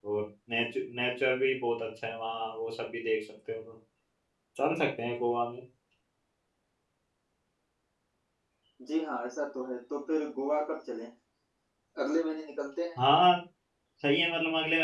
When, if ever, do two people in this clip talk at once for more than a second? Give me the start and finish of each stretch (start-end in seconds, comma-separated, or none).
none